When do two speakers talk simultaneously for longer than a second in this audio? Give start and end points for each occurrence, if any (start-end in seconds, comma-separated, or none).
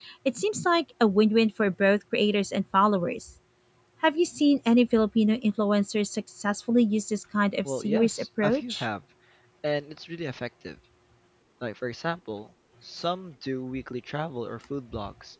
7.6-8.8